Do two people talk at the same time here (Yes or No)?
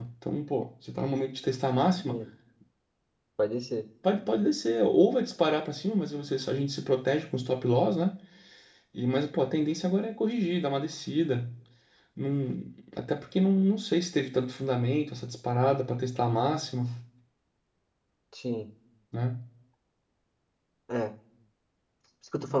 No